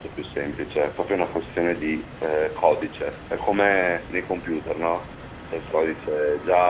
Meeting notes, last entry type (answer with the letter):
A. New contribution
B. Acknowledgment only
B